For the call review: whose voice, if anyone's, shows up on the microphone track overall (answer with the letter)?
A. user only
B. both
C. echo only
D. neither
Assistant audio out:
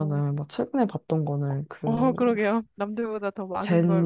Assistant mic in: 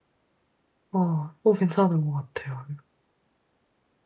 A